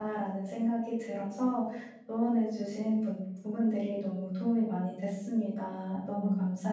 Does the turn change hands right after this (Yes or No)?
Yes